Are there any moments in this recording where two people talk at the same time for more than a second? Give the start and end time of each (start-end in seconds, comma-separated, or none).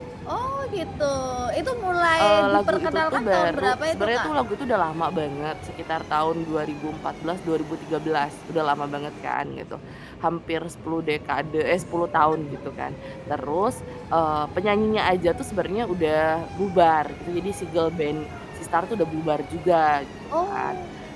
2.2-4.3